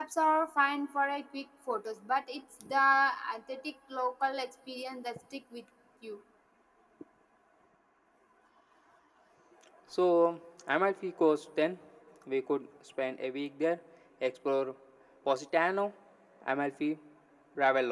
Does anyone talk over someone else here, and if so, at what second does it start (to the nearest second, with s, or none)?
none